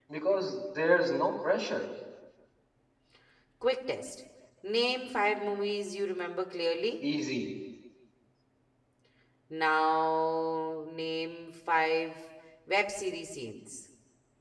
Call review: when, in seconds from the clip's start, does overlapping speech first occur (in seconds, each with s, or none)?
none